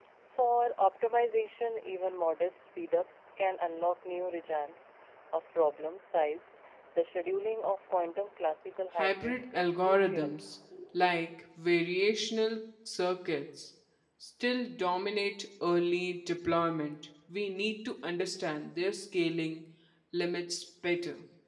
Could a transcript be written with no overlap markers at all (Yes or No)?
No